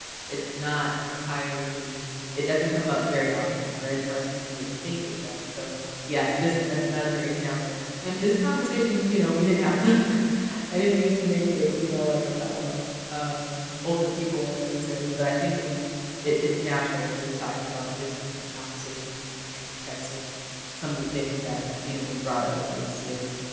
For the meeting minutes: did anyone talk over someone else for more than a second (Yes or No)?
No